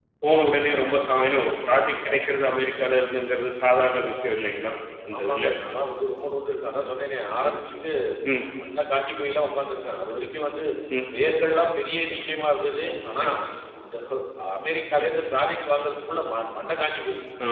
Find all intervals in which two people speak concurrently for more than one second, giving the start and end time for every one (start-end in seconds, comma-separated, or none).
none